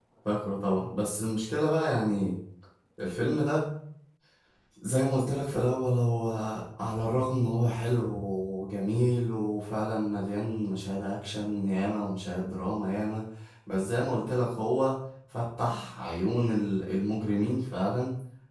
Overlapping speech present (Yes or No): No